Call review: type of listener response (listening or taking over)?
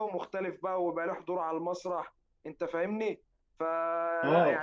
listening